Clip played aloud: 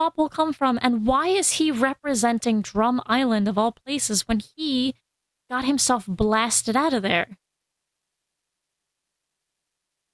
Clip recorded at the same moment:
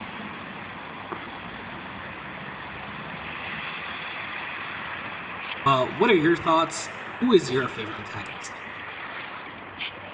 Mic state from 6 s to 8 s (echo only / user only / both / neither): user only